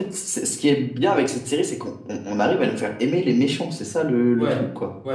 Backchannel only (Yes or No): No